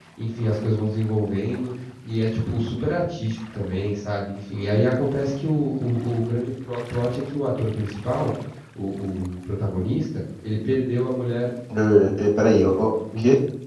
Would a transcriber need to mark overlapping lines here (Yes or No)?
No